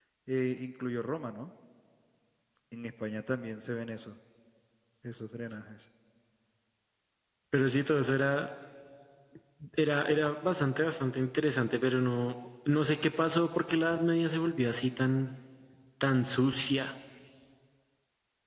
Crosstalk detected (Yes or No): No